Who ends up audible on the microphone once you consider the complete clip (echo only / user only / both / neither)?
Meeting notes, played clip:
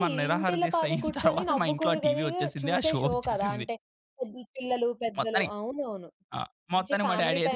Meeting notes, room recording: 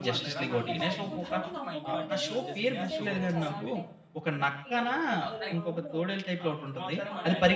both